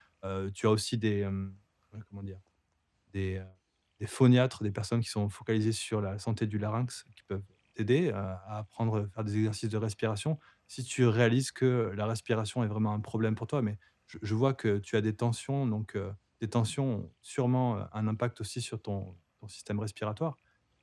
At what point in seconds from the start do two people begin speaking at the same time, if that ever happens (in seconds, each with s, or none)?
none